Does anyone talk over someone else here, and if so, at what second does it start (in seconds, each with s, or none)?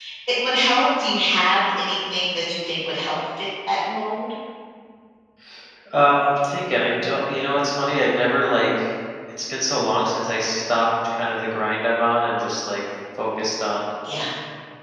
none